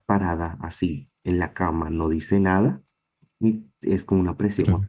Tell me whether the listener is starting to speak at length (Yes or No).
No